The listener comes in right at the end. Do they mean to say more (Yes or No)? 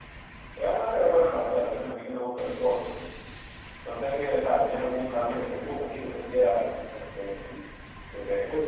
Yes